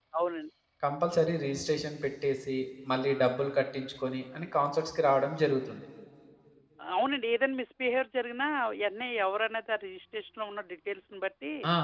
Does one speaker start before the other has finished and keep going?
No

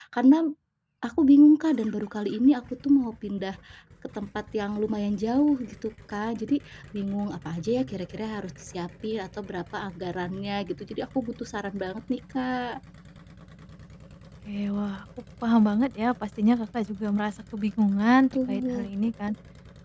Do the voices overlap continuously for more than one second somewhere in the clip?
No

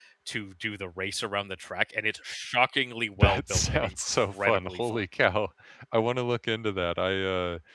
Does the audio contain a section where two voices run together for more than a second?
Yes, from 3.2 s

